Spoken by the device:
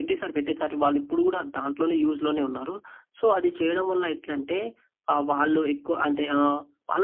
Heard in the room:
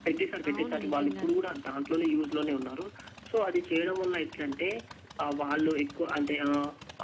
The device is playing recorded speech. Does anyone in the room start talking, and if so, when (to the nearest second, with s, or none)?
0 s